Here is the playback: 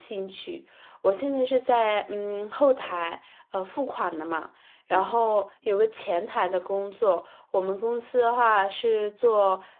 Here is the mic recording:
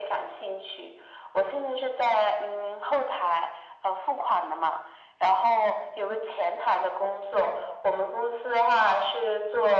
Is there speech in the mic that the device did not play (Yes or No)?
No